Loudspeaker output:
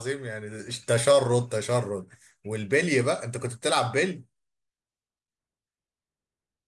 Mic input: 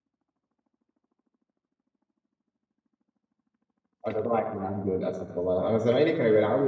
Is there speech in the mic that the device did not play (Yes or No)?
Yes